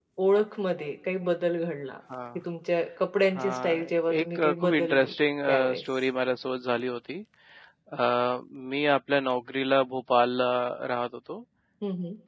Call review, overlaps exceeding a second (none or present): present